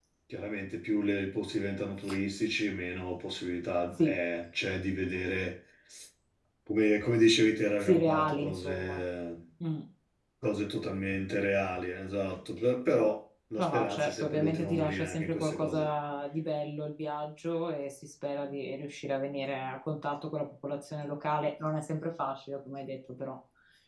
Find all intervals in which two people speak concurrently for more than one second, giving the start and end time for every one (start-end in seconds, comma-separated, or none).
7.8-9.0, 13.6-15.9